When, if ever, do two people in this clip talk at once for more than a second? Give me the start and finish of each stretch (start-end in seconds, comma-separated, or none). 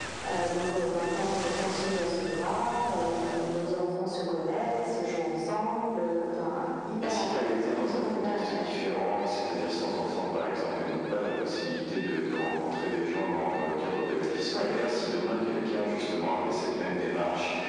7.0-8.7